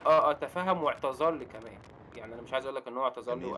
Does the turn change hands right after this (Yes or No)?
No